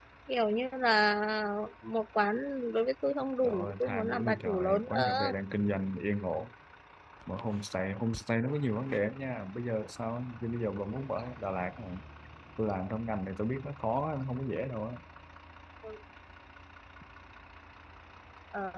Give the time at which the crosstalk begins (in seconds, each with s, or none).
3.4 s